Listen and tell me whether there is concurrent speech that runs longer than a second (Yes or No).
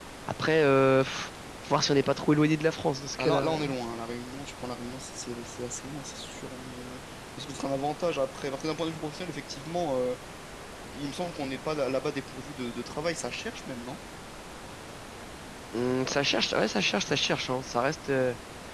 No